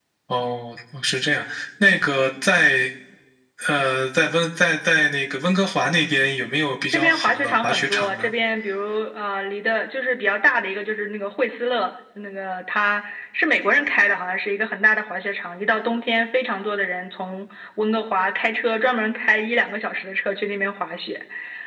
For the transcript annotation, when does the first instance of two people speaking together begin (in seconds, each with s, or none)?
6.9 s